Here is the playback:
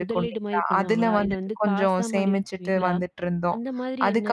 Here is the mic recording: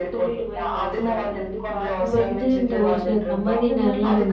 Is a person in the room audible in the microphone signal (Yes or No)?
Yes